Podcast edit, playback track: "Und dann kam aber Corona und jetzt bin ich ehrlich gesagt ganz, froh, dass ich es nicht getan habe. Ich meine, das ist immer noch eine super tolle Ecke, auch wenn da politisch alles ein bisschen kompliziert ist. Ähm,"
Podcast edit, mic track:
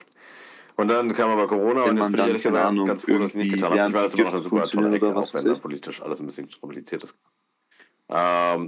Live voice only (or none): wenn man dann, keine Ahnung, irgendwie lernt, wie Gifte funktionieren oder was weiß ich.